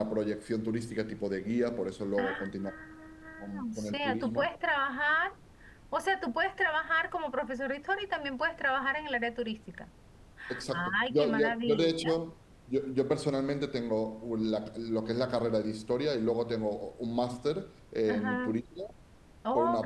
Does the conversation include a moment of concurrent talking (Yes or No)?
Yes